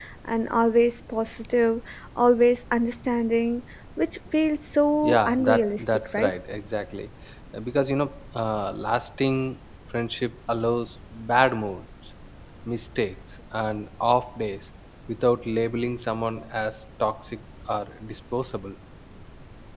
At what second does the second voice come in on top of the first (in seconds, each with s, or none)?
5.0 s